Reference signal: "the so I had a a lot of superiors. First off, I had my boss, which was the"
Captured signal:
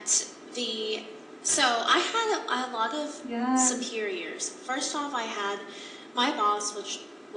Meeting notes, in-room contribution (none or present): present